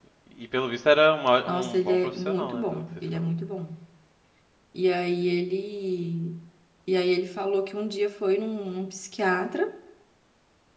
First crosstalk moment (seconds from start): 1.5 s

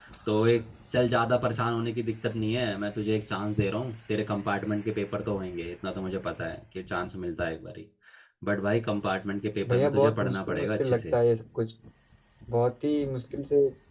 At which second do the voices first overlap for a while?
9.6 s

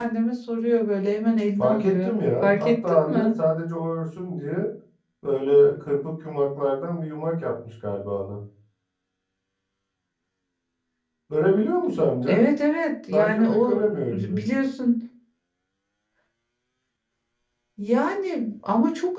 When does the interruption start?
1.6 s

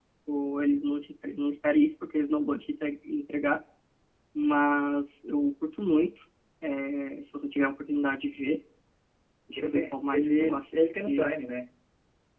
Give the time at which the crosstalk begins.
9.6 s

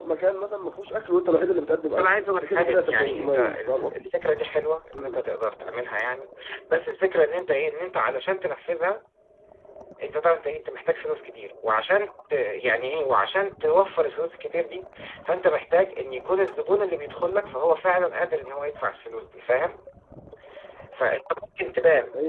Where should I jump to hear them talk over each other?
1.8 s

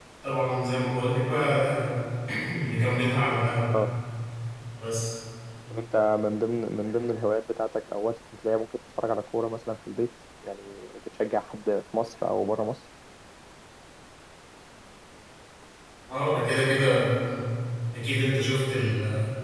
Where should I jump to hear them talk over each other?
none

